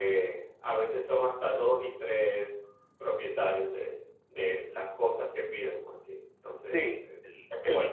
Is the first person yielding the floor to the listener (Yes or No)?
Yes